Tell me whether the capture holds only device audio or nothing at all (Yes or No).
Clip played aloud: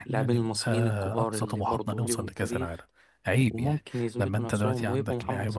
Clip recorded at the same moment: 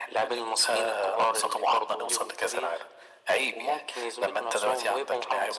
Yes